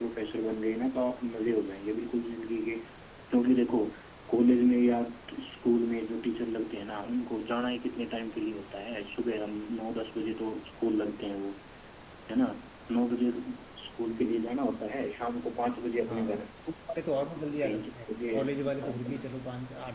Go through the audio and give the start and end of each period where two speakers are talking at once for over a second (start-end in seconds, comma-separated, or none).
17.6-19.2